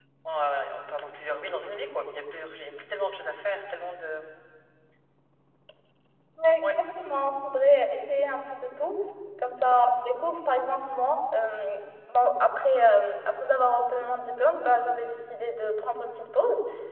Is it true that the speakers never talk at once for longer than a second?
Yes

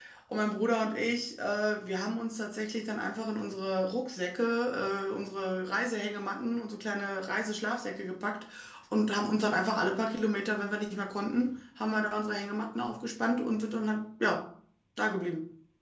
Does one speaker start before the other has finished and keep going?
No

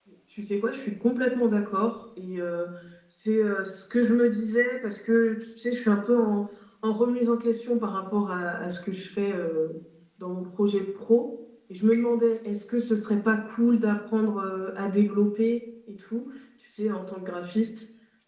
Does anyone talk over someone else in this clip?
No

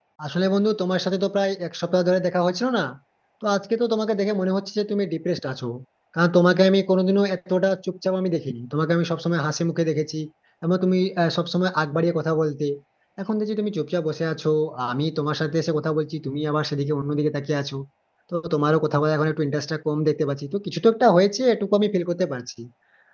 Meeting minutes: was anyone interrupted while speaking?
No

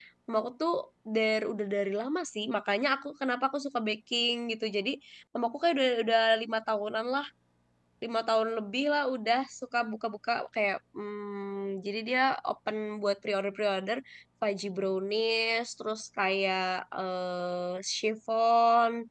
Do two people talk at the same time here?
No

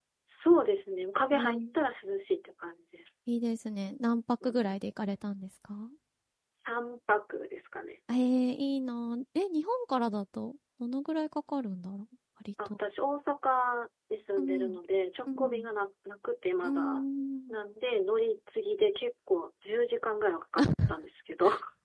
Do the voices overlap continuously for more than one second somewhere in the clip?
No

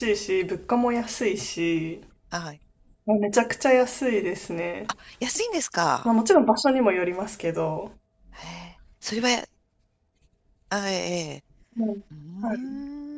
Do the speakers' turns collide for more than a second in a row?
No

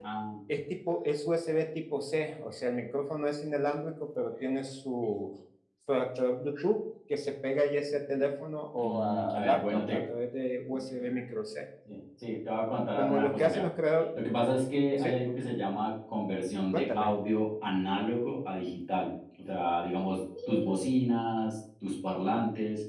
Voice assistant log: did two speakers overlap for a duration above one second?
Yes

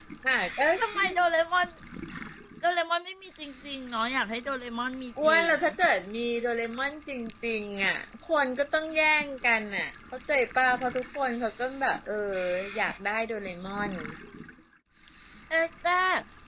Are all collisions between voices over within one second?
Yes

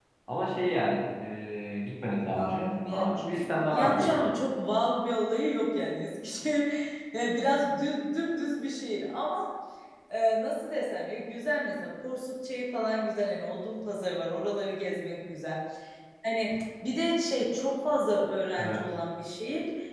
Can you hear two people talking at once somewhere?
Yes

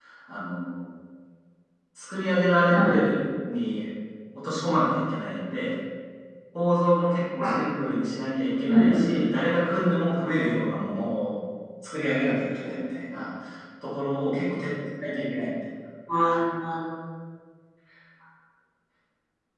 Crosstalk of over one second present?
No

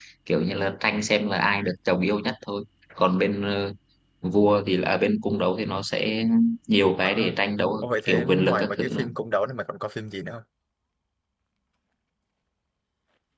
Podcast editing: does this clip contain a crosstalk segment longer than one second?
Yes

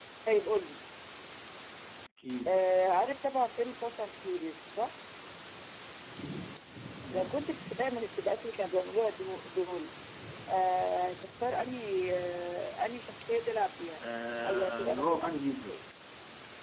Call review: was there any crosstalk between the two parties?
Yes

